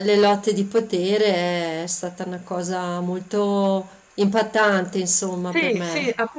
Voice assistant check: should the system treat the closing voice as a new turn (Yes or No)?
Yes